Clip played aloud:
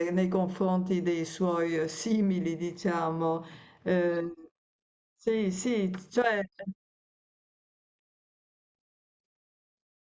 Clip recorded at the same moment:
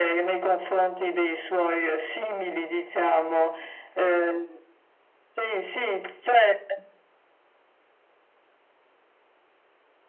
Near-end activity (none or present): none